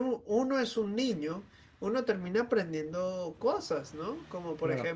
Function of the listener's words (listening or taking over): listening